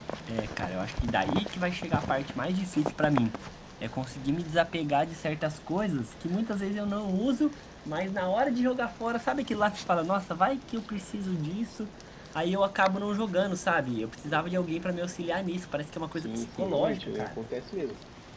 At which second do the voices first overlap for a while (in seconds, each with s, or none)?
16.1 s